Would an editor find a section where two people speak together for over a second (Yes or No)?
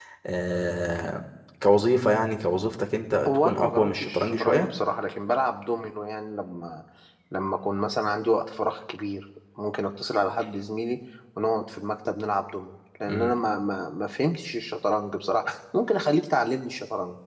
Yes